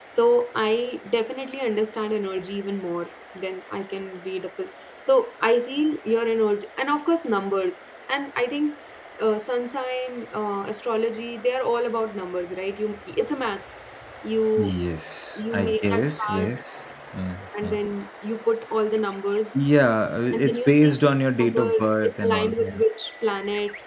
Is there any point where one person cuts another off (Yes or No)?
Yes